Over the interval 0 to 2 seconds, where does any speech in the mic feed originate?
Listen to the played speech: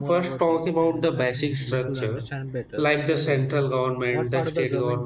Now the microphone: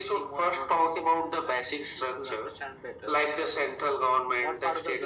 echo only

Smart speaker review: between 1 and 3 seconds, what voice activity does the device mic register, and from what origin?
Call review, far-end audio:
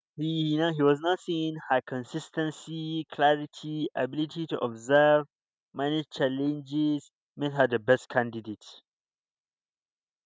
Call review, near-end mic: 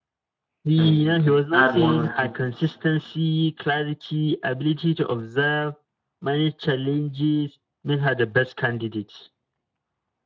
both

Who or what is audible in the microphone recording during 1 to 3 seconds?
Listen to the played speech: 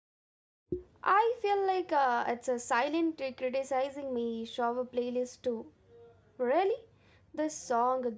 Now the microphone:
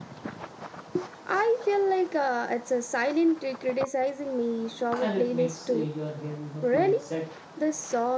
echo only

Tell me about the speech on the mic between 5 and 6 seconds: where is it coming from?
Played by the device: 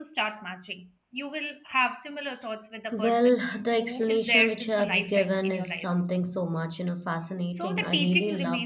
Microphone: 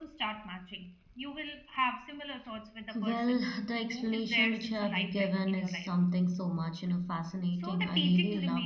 echo only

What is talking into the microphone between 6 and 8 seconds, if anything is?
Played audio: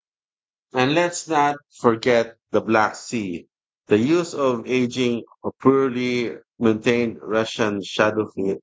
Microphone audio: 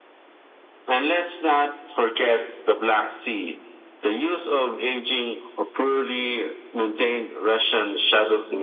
echo only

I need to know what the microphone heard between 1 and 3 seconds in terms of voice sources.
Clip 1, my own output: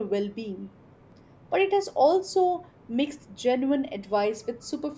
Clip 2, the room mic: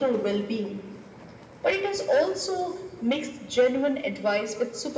echo only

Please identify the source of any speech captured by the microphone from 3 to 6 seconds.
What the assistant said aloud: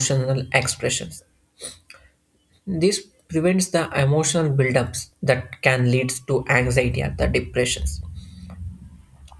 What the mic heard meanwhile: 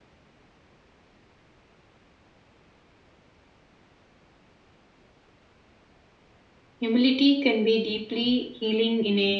neither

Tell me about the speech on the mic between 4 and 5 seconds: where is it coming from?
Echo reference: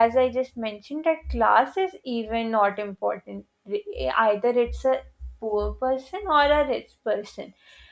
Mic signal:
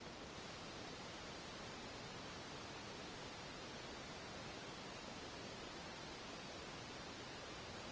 neither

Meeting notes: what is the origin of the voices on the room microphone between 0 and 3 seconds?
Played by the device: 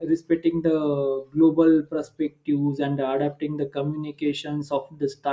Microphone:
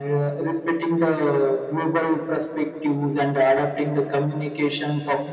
echo only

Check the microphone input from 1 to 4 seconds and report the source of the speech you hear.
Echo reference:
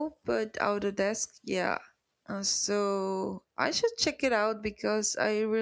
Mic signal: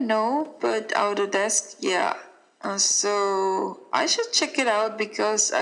echo only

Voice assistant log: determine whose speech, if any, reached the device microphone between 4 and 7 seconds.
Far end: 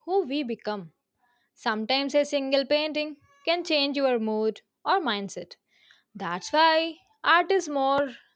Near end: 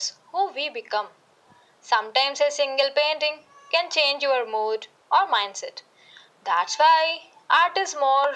echo only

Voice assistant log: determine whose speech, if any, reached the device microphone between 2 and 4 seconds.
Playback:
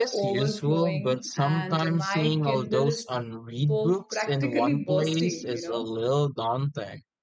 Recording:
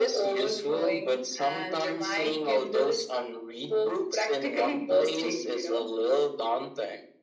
echo only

